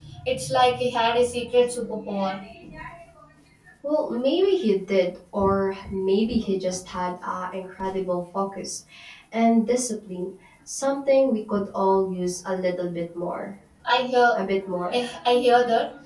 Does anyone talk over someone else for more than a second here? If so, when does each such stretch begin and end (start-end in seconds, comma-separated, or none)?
none